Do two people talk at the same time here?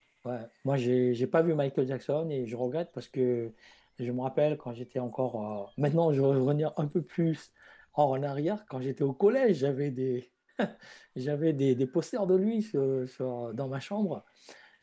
No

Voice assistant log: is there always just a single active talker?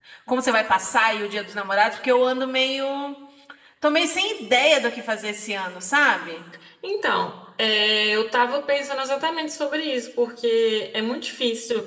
Yes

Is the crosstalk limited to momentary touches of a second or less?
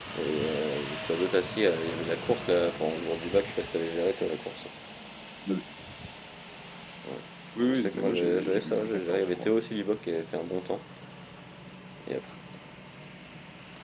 No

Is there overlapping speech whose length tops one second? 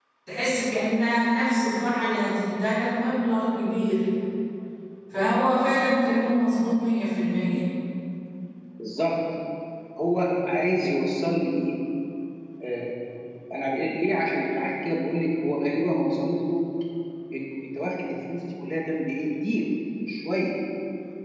No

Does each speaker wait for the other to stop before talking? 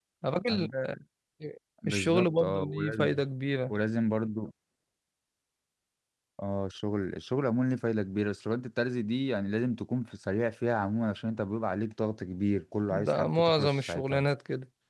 No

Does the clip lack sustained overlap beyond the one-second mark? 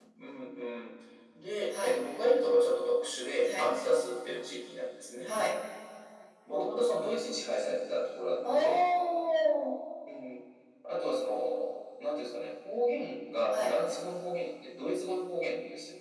Yes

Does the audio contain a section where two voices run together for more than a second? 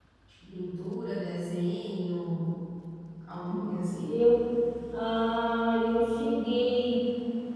No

